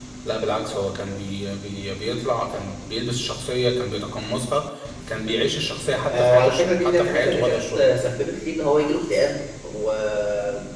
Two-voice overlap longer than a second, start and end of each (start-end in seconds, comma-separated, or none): 6.1-7.8